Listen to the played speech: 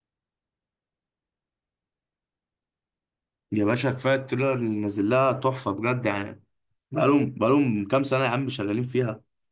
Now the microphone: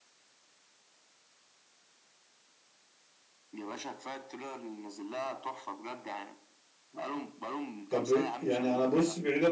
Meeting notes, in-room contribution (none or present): present